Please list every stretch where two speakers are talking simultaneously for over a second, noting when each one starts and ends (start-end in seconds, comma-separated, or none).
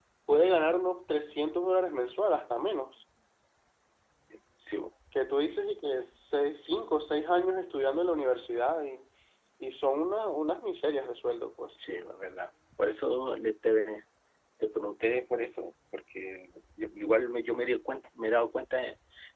none